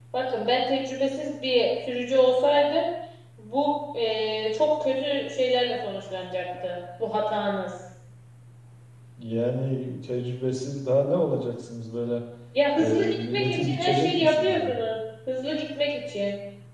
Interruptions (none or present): present